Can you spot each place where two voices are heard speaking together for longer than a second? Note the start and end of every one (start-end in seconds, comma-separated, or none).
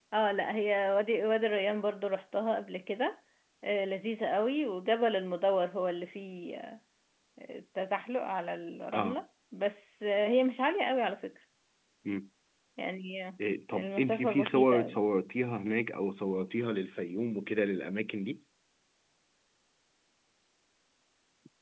13.7-15.0